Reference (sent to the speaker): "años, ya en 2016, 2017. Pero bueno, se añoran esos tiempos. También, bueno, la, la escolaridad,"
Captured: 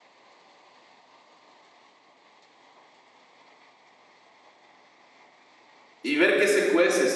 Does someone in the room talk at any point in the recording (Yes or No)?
Yes